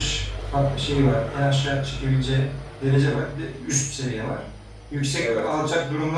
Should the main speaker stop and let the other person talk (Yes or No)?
No